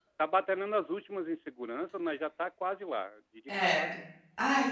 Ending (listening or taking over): taking over